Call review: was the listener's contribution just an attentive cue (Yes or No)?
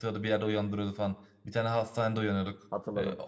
Yes